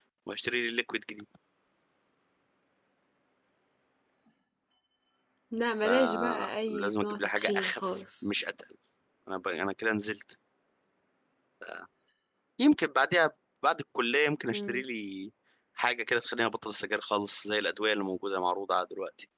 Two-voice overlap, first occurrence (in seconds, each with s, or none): 5.8 s